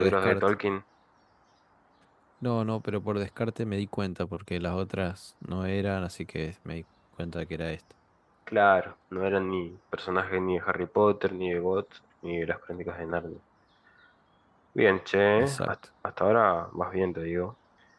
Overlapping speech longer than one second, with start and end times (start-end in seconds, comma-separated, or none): none